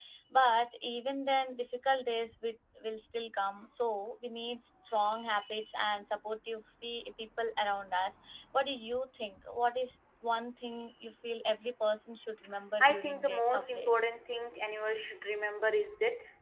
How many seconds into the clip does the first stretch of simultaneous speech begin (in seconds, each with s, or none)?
12.8 s